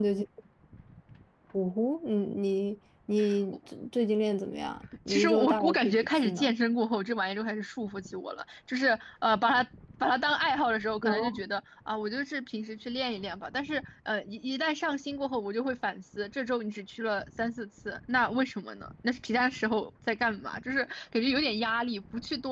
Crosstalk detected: Yes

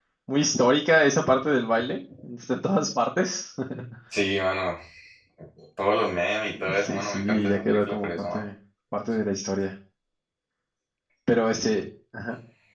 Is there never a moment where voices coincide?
No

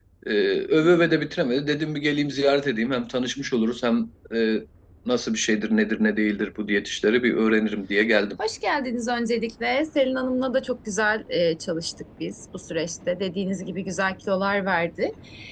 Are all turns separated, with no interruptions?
Yes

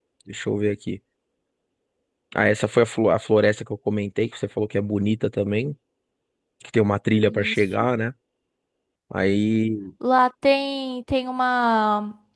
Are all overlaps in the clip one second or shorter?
Yes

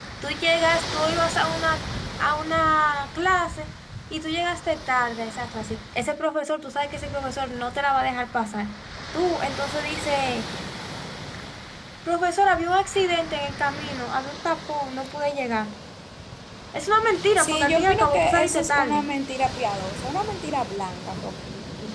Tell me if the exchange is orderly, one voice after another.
No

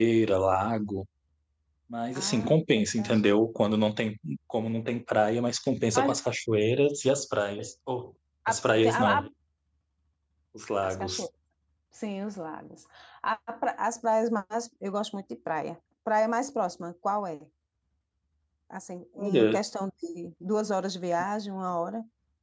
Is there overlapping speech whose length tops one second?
Yes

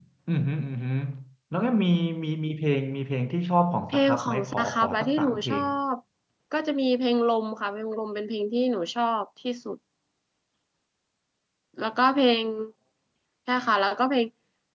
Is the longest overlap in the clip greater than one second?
Yes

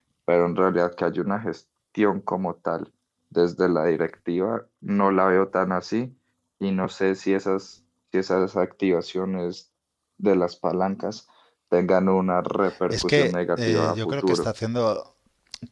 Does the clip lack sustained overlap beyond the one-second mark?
No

